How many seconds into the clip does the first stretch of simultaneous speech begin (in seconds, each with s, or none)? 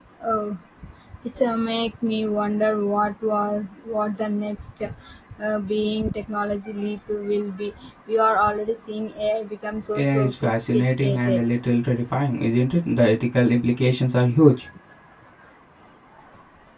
9.9 s